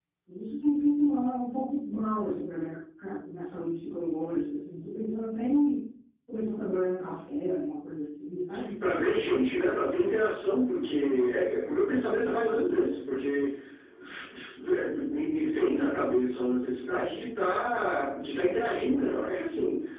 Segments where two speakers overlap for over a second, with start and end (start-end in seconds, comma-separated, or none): none